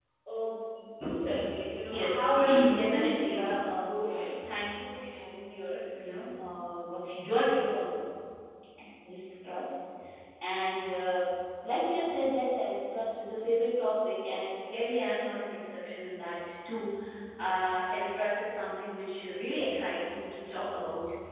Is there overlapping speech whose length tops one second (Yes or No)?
Yes